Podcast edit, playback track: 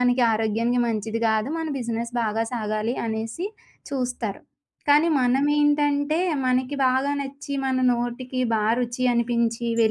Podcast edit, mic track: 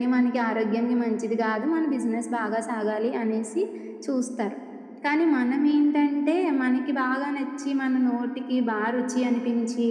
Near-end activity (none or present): none